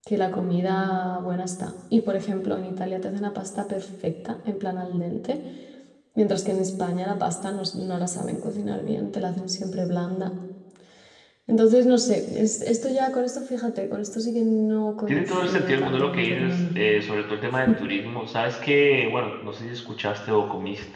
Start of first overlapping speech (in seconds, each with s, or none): 15.1 s